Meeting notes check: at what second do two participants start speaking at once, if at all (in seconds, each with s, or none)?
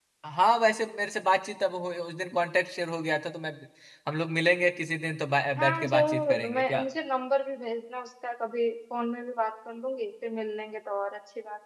5.6 s